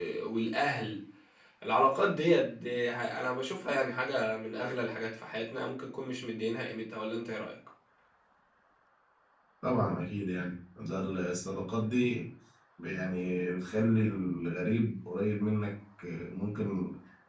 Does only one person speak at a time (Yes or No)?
Yes